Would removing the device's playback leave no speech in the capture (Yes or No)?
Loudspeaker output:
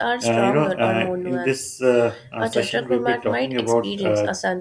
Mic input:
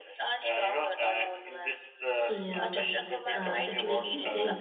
No